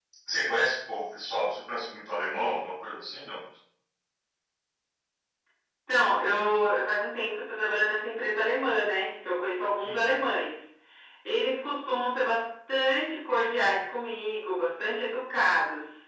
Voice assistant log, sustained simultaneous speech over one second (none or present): none